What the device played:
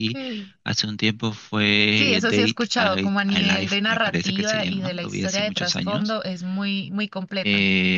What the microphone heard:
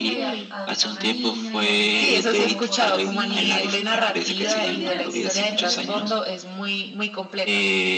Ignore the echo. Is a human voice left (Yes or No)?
Yes